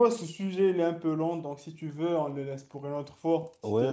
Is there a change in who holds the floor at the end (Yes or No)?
Yes